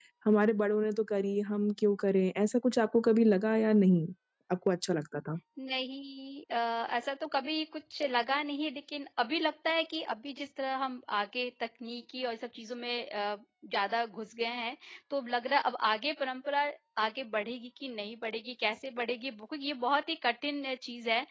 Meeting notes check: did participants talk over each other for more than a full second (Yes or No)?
No